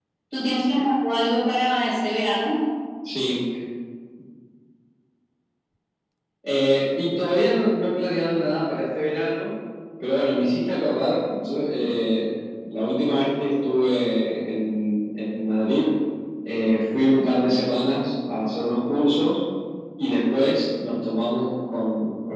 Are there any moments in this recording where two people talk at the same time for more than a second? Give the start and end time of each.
none

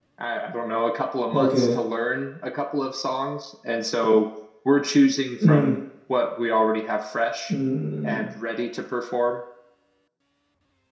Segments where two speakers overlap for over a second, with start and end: none

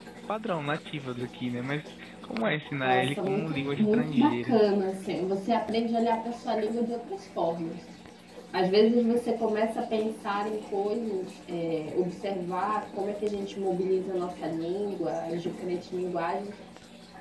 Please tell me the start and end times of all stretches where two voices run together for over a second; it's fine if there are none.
2.8-4.6

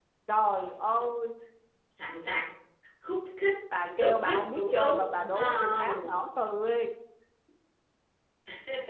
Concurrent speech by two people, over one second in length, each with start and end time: 4.0-6.1

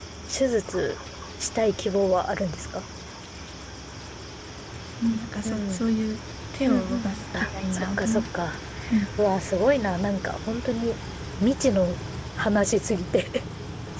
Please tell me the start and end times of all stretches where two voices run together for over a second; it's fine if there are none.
6.7-8.2

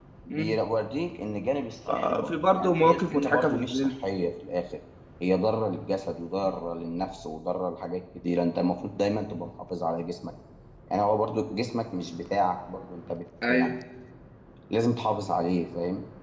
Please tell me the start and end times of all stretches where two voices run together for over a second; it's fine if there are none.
1.9-4.0

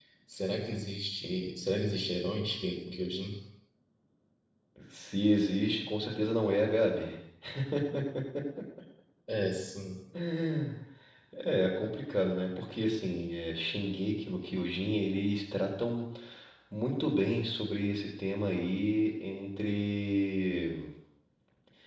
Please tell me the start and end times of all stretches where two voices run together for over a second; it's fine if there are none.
none

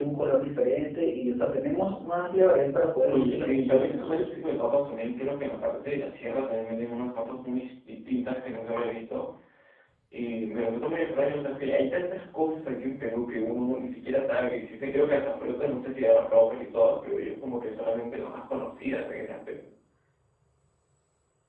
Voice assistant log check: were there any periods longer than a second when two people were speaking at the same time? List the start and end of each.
3.1-4.5

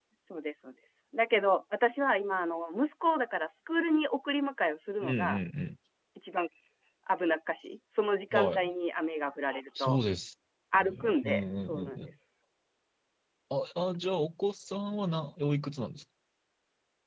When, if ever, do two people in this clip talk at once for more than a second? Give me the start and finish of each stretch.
10.8-12.1

